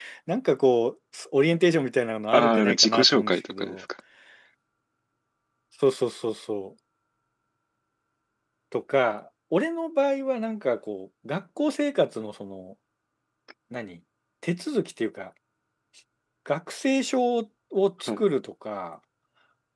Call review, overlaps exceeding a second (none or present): present